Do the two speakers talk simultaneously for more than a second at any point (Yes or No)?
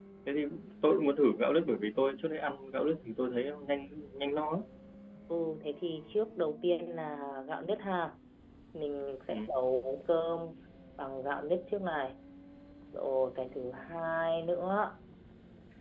No